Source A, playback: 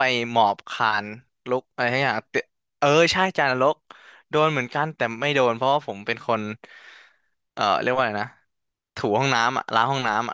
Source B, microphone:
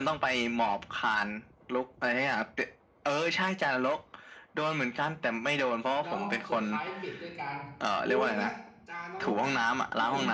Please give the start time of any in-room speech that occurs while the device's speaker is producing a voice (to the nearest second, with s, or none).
6 s